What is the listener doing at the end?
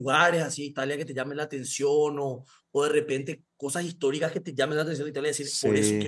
taking over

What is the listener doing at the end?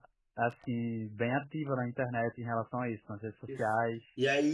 taking over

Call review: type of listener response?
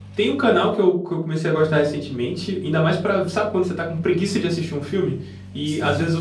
listening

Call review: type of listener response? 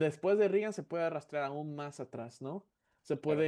listening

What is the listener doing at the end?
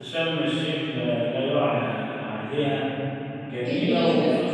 listening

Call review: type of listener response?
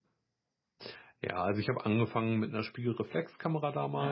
listening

